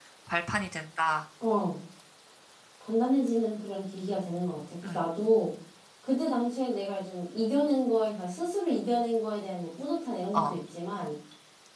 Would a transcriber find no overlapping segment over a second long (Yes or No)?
Yes